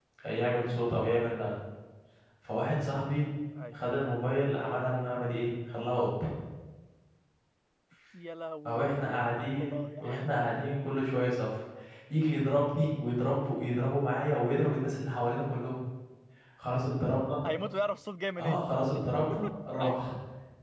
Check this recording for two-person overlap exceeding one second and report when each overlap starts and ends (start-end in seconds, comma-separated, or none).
8.7-10.3